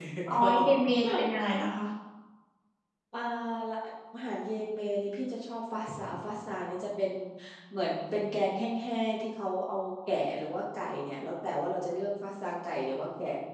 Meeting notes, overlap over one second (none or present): none